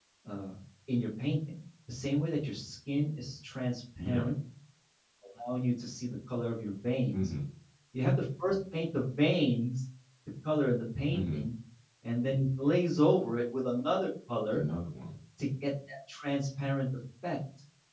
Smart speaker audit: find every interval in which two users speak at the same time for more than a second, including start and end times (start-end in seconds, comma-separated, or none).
none